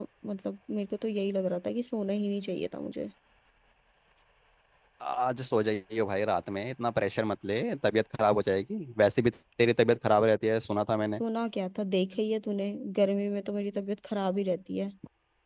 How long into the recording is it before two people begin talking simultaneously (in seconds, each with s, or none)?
none